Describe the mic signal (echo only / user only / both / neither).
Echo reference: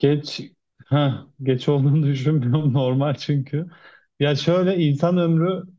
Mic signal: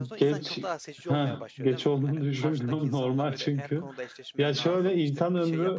both